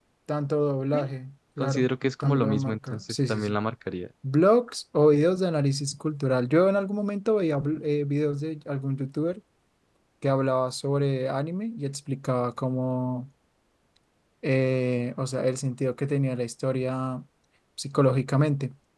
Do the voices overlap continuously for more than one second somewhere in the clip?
Yes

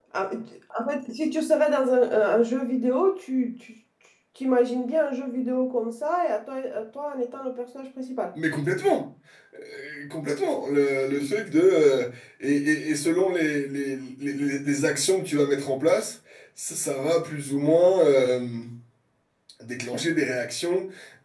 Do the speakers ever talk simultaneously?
No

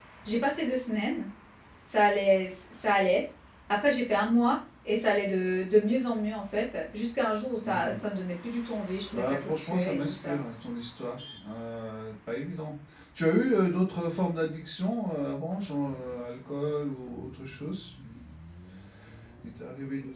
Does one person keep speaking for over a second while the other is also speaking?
Yes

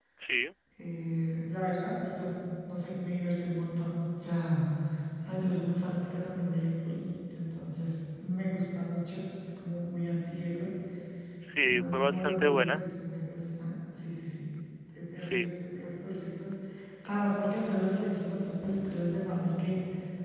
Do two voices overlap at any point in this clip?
Yes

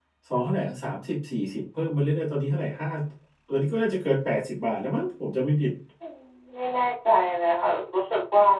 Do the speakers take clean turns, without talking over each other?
Yes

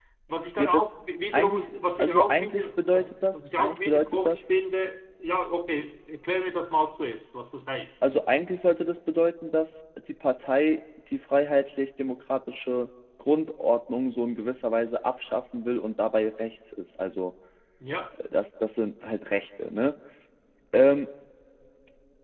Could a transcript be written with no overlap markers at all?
No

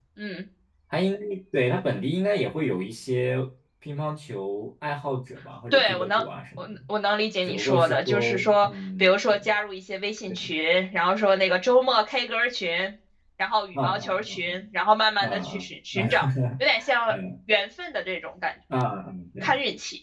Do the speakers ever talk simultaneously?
Yes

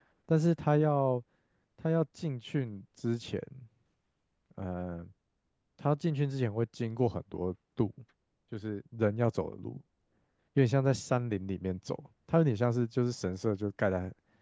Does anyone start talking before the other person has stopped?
No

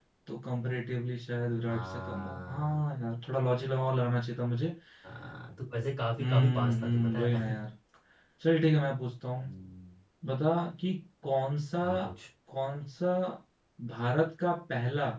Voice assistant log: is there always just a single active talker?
No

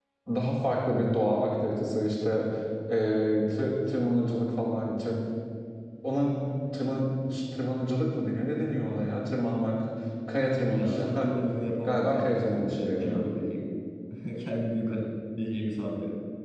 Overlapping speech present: Yes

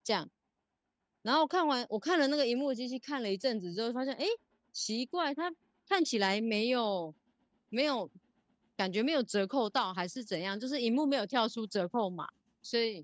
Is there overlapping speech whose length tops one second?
No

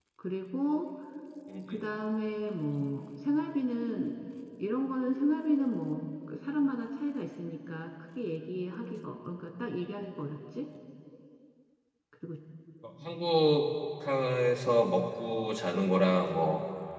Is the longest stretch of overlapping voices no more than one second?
Yes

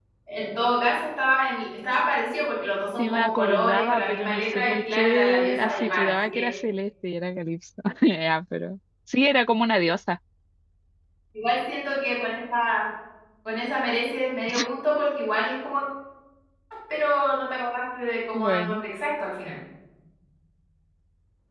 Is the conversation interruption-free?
No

